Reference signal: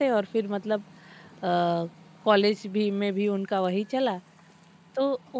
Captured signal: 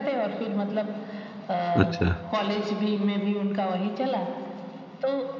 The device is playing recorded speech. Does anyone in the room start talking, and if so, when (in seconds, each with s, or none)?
1.7 s